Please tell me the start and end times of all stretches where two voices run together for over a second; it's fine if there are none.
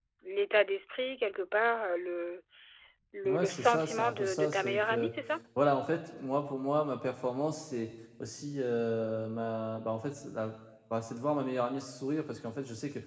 3.2-5.1

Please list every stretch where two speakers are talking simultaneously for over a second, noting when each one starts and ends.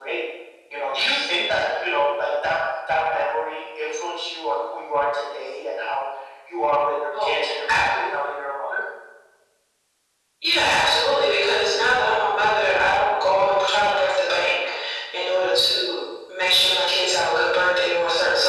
none

